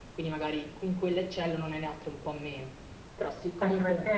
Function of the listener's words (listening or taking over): taking over